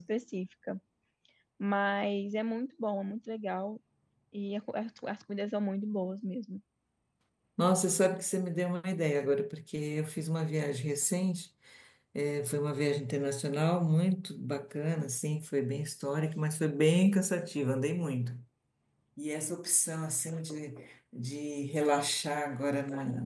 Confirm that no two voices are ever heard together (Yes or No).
Yes